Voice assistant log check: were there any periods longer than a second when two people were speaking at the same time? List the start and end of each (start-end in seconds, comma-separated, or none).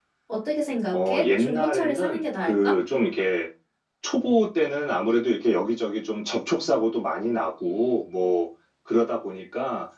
0.9-2.8